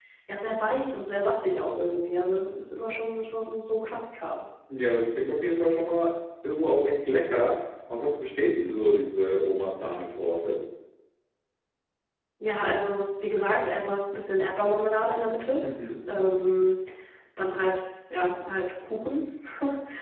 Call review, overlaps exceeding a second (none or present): none